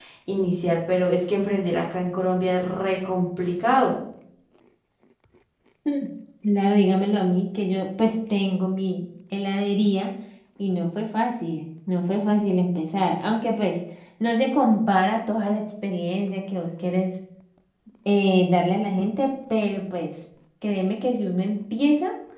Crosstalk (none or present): none